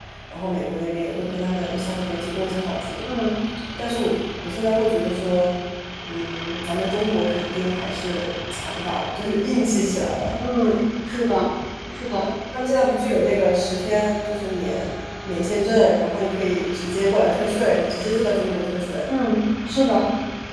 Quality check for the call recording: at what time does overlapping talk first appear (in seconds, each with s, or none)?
none